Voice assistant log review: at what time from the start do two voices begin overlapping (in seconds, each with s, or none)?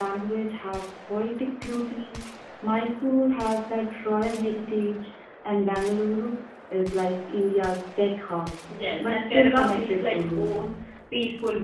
9.0 s